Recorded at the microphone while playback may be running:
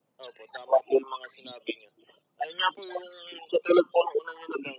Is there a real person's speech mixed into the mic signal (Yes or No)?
No